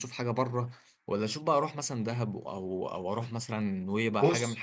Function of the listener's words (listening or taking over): taking over